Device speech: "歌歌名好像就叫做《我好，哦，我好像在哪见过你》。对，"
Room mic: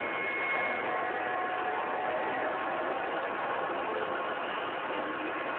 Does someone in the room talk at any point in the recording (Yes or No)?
No